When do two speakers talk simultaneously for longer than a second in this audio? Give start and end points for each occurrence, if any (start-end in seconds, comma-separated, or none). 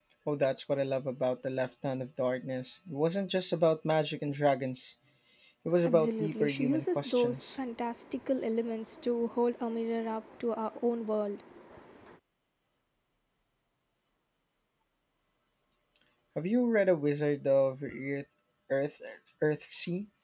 5.8-7.5